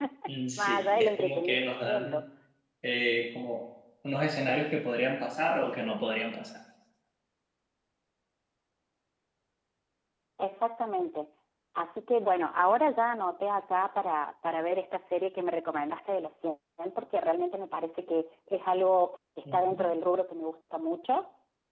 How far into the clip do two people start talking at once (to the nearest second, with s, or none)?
1 s